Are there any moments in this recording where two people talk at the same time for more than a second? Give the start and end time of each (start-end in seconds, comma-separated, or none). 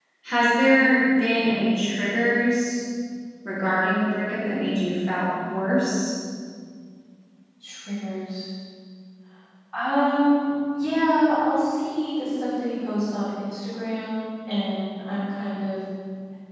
none